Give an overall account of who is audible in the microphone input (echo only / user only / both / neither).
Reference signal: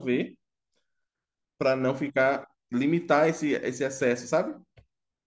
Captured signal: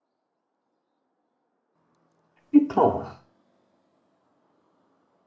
user only